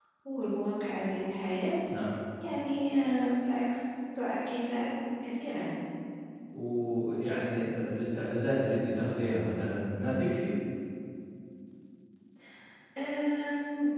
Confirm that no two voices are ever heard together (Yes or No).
Yes